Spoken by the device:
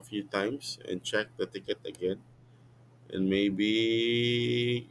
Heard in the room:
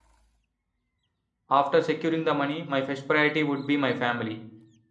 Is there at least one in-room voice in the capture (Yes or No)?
Yes